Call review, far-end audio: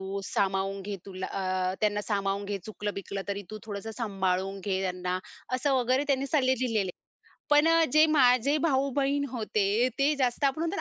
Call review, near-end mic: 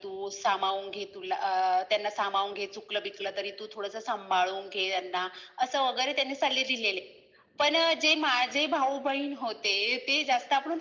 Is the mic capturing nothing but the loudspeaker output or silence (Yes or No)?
Yes